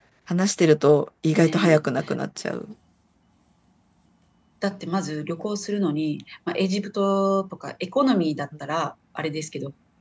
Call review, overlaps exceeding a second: none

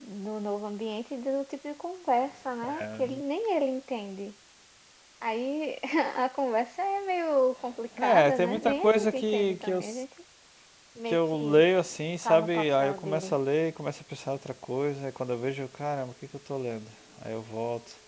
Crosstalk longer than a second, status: present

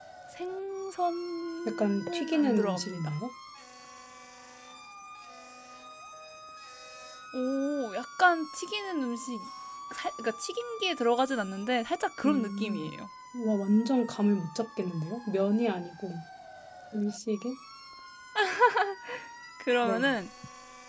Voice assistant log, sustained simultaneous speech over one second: present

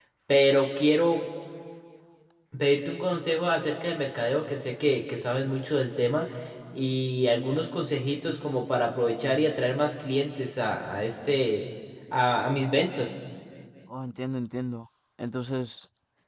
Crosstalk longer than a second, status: none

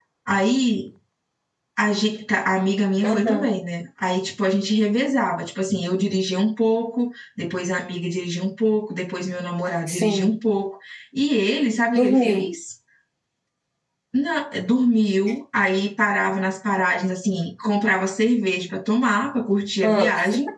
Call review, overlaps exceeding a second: none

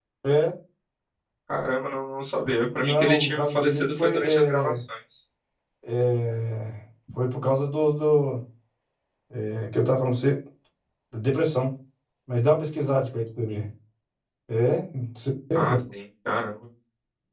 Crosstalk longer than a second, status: present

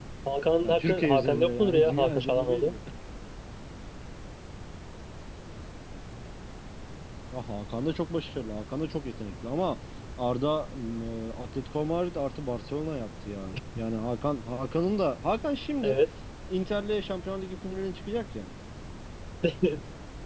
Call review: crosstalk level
present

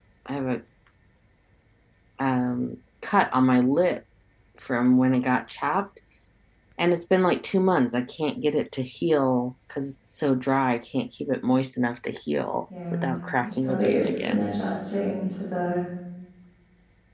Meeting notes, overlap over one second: present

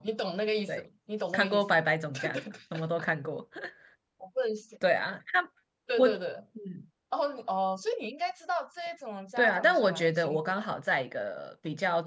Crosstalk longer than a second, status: present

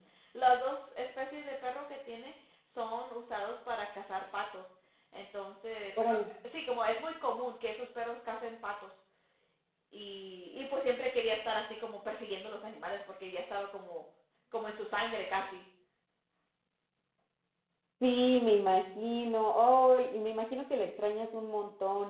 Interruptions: none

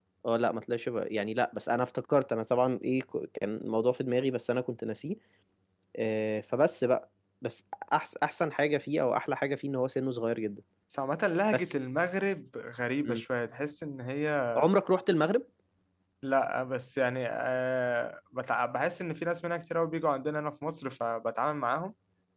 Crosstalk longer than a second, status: none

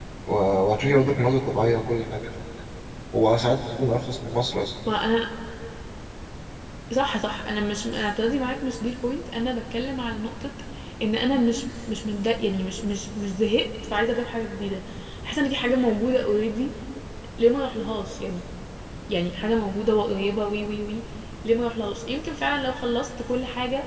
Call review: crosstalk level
none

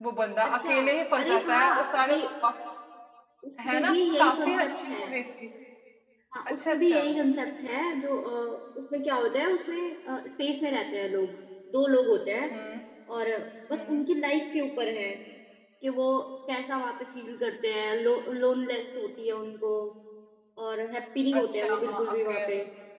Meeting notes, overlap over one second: present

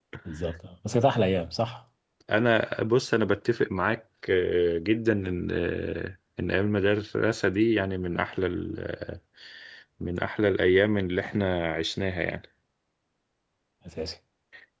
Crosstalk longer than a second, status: none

